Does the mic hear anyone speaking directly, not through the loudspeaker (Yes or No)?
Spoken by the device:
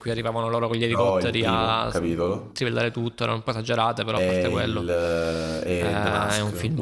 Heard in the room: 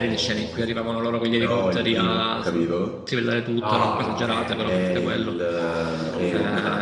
Yes